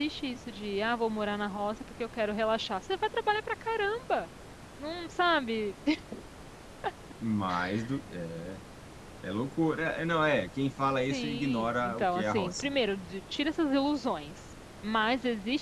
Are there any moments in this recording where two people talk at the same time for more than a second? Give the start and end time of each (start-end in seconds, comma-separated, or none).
11.1-12.7